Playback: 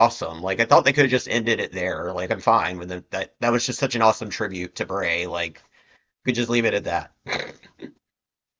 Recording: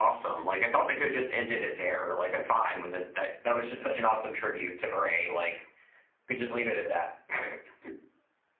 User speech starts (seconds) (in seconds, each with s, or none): none